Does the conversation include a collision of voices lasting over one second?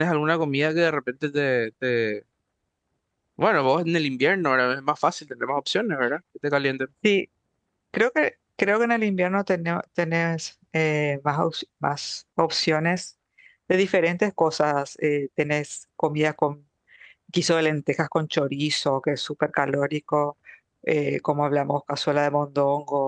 No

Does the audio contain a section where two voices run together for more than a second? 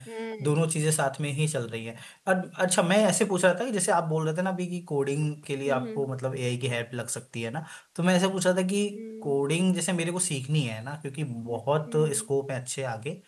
No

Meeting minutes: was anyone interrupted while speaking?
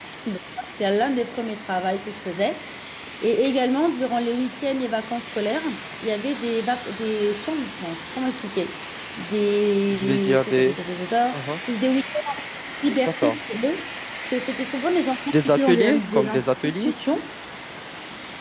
Yes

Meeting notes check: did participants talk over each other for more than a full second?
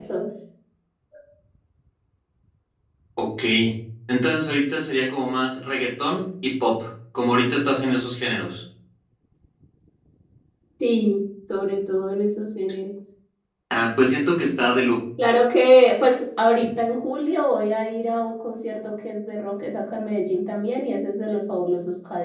No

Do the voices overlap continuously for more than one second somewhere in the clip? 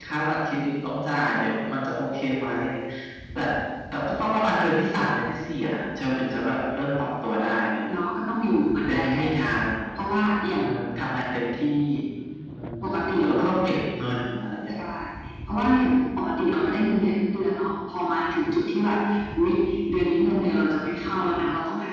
No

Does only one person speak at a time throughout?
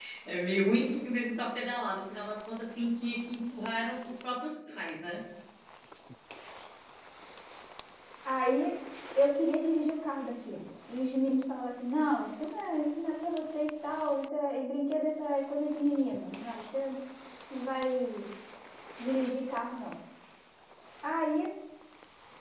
Yes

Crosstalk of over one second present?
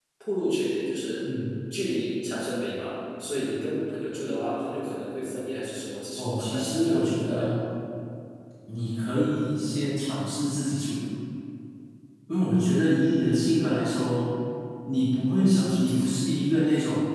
Yes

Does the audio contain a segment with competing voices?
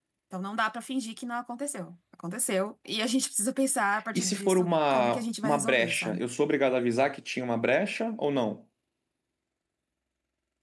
Yes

